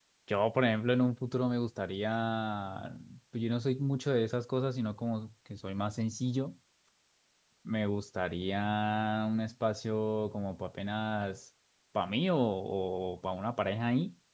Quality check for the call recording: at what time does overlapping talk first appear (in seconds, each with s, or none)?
none